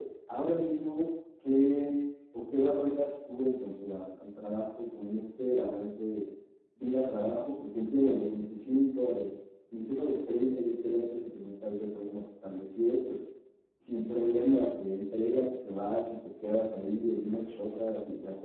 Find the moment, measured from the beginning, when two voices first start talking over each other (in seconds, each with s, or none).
none